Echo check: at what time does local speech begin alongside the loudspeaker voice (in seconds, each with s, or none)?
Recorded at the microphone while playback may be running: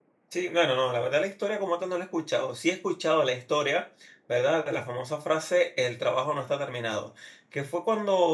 0.3 s